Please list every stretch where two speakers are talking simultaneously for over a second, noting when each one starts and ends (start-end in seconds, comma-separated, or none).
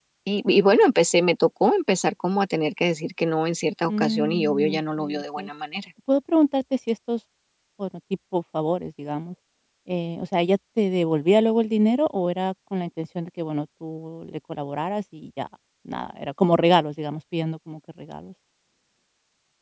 3.9-5.5